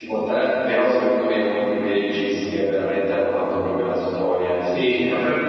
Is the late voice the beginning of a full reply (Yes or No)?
Yes